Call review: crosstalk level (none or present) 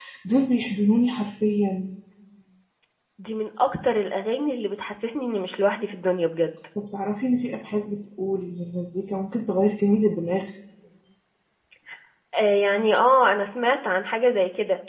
none